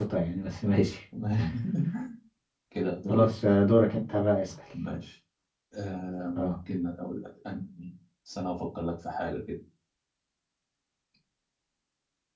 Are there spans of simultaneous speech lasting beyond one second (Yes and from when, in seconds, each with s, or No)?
No